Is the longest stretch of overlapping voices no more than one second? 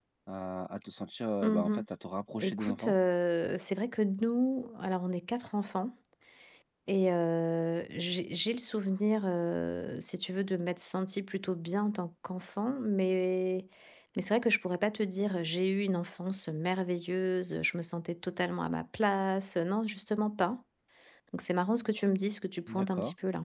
Yes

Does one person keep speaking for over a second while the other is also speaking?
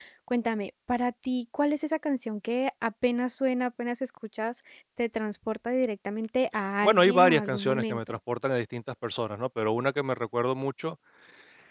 Yes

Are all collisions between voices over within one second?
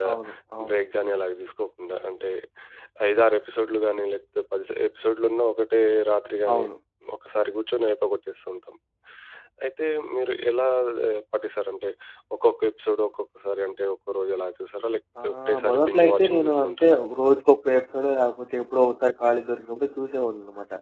No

